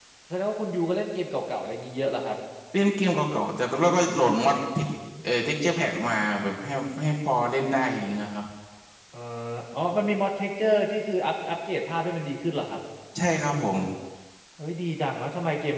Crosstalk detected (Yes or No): No